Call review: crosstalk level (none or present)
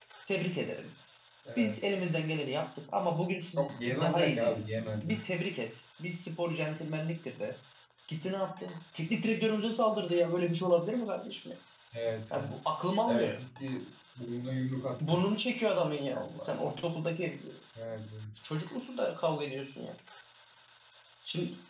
present